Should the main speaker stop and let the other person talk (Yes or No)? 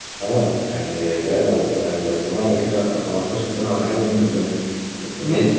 Yes